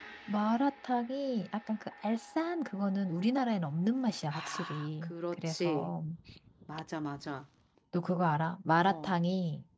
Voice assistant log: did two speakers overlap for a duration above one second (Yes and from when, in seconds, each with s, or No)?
Yes, from 4.3 s